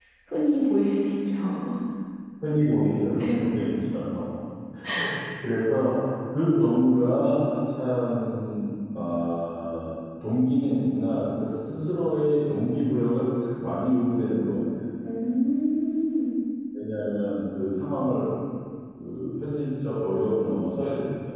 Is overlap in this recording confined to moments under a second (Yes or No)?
Yes